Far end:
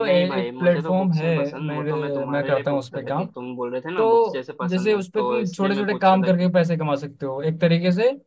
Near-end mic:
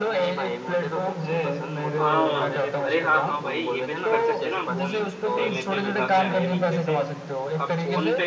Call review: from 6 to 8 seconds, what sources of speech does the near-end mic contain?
both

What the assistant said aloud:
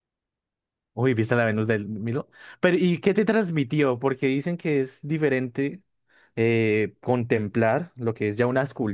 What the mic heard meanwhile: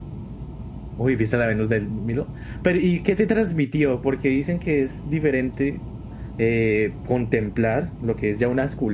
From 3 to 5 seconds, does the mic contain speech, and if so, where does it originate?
echo only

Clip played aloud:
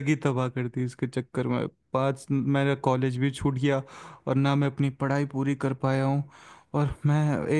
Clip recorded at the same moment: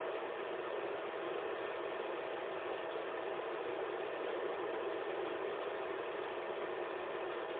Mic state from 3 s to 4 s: neither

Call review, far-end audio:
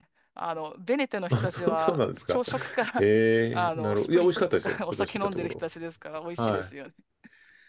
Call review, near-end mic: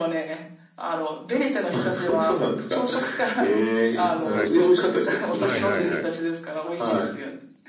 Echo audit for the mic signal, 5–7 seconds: both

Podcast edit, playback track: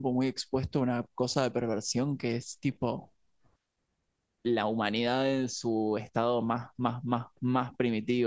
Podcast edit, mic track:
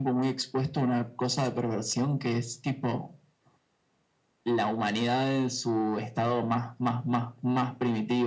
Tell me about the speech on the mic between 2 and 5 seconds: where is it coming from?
echo only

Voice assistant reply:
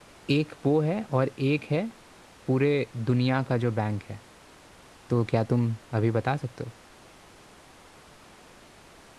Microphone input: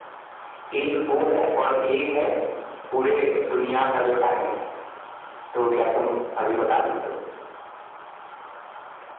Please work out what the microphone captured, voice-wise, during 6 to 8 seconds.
echo only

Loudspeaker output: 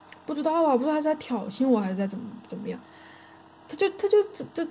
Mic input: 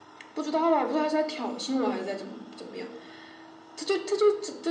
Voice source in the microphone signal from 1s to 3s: echo only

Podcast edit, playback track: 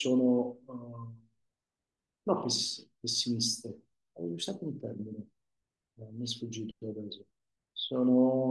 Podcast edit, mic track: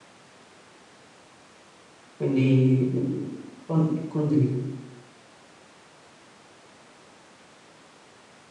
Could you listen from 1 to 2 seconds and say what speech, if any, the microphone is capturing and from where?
neither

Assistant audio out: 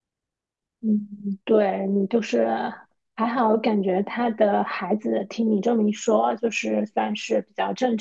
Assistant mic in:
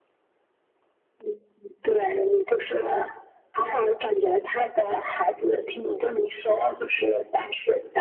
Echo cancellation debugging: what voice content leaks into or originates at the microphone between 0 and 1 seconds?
neither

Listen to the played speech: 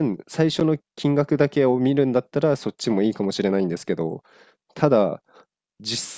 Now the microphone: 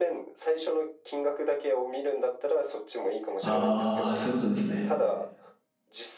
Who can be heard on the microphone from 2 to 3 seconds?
echo only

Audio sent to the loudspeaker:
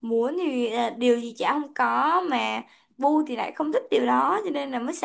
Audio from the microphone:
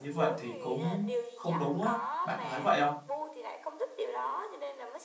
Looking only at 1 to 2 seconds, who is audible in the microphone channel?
both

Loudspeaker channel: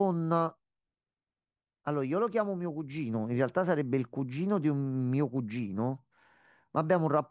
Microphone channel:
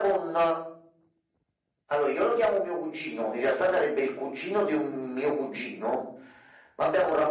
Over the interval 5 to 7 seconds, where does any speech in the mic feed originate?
echo only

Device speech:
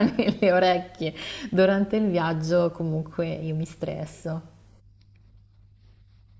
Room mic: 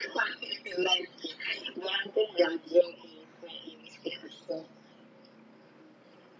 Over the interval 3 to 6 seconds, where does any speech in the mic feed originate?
echo only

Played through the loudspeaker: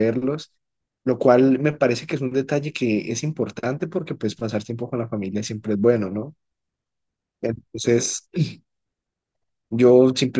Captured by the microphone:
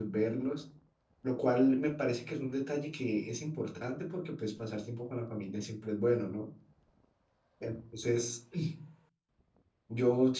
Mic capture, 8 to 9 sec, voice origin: echo only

